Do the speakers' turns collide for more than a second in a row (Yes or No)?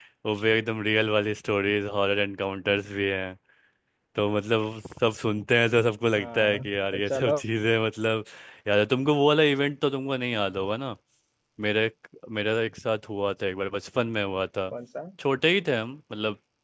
Yes